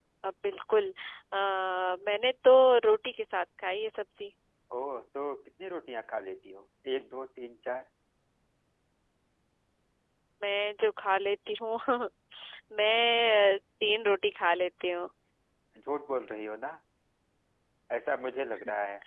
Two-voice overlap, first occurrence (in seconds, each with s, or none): none